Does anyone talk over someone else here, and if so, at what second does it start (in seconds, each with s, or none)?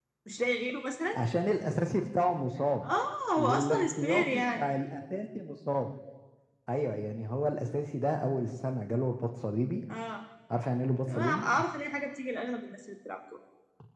3.4 s